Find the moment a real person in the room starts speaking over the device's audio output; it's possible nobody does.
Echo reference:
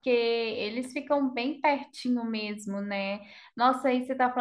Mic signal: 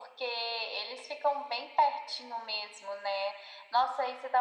none

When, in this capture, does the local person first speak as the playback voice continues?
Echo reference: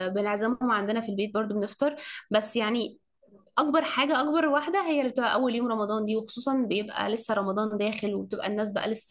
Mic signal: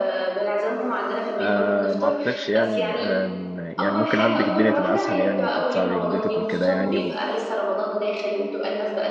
1.4 s

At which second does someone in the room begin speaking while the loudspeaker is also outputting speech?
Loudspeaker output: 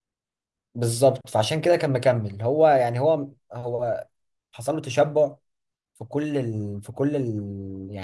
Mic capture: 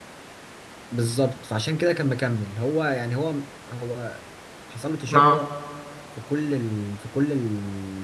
5.2 s

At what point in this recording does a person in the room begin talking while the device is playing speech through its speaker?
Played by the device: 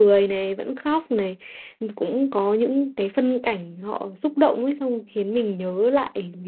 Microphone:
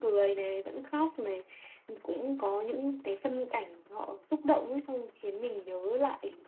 none

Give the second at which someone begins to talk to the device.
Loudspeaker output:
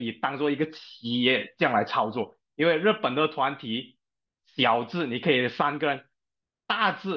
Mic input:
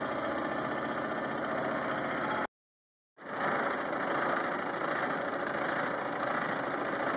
none

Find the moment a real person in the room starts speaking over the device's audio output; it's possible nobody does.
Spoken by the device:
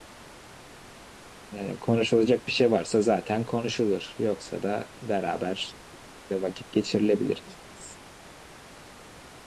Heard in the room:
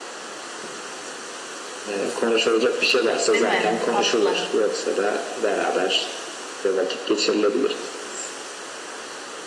3.3 s

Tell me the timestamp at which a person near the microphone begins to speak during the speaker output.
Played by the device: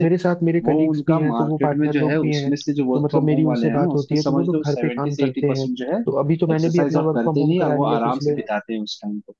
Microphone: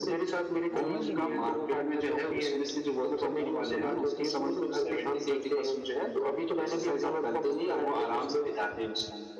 0.8 s

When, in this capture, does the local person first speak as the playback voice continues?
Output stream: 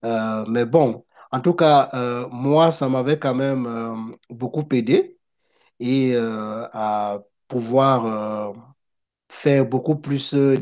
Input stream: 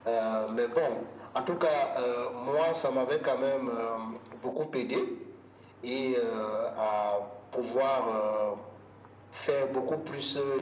none

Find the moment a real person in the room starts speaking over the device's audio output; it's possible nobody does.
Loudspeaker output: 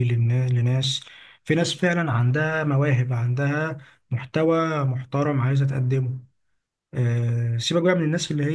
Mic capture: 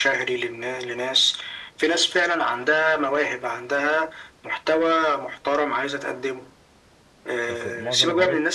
7.5 s

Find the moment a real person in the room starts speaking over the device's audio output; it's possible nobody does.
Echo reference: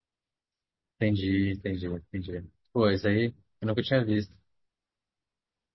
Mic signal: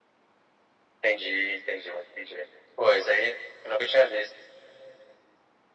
none

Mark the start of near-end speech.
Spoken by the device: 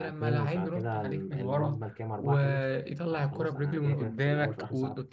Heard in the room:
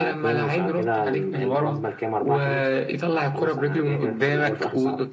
none

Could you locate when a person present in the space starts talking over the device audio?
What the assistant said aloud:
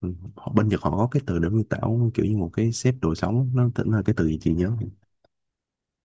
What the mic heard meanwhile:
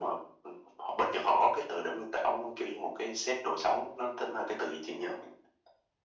none

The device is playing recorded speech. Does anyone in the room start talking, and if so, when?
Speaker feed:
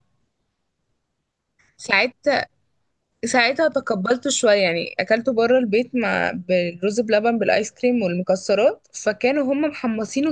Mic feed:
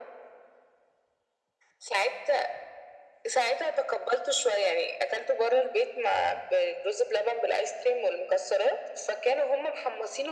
none

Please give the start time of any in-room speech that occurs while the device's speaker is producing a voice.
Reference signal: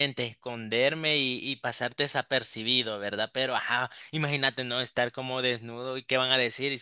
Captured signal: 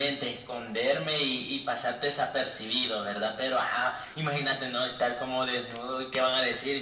none

